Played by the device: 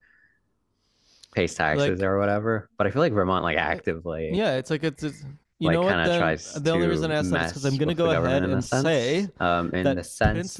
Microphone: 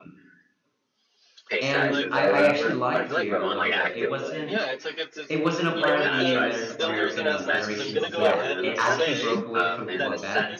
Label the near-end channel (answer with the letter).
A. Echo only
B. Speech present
B